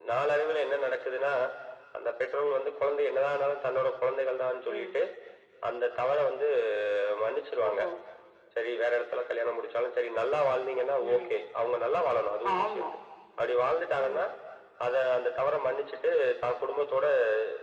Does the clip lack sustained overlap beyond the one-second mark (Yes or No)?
Yes